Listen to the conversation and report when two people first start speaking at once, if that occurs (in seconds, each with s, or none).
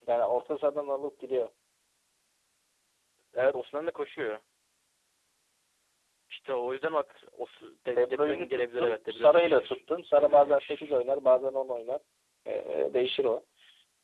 8.0 s